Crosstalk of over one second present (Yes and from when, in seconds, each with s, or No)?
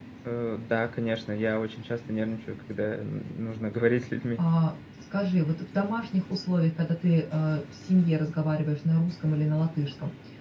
No